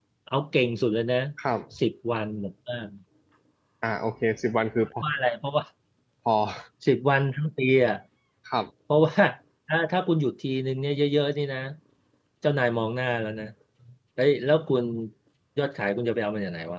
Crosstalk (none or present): none